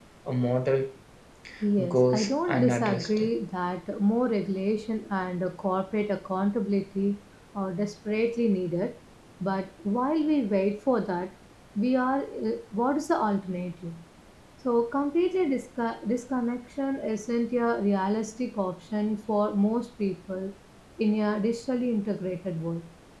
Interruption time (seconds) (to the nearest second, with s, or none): 2 s